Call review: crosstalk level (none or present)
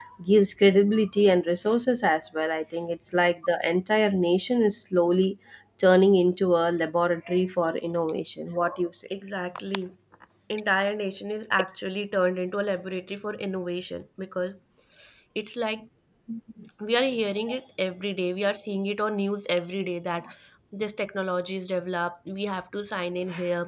none